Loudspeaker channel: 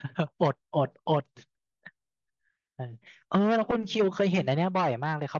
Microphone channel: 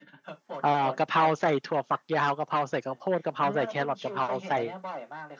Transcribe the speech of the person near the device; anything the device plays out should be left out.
เออกะเพราใส่ถั่วฝักยาวกะเพราใส่กระโพดกะเพราใส่แครอทกะเพราใส่

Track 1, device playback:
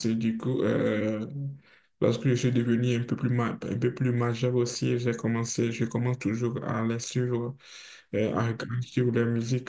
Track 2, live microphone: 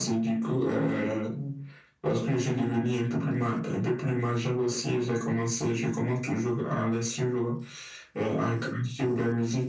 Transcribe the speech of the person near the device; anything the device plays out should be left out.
none

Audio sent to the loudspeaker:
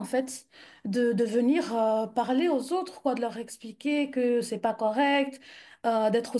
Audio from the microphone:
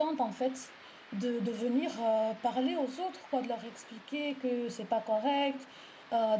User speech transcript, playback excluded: none

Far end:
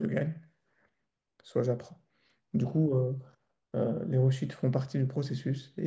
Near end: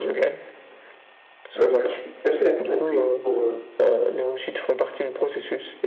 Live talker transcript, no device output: Euh, bah, je suis assez d'accord. Et puis, pour, euh,

